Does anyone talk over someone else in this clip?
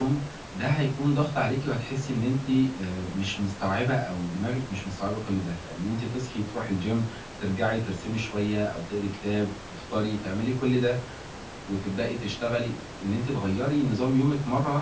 No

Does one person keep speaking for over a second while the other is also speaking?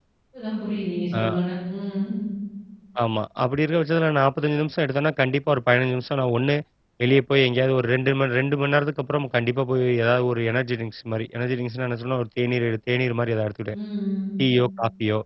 No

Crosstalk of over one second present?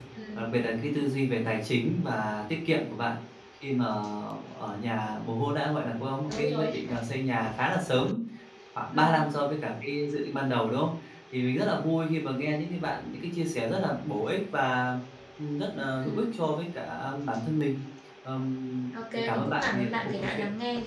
Yes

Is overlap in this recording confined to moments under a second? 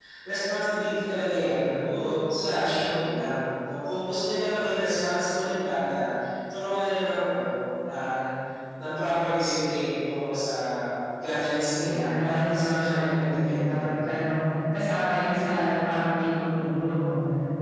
No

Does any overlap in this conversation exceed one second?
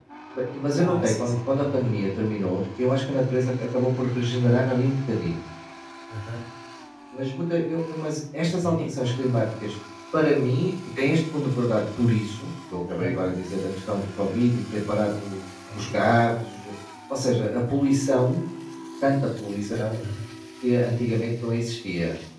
Yes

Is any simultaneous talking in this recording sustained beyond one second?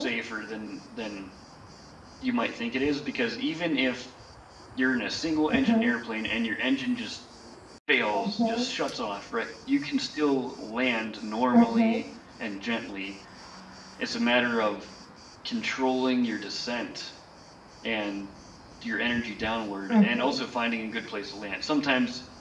No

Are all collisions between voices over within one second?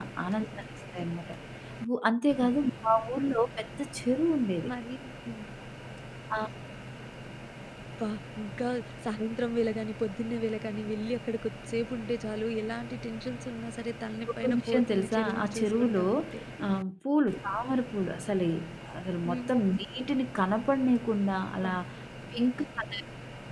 No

